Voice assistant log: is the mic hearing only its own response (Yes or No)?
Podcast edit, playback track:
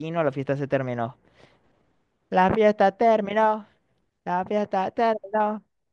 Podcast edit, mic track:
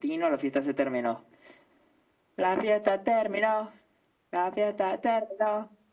Yes